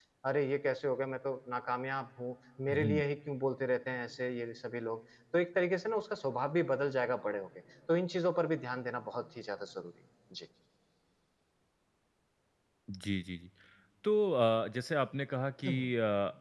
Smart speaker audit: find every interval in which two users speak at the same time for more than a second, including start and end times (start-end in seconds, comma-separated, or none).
none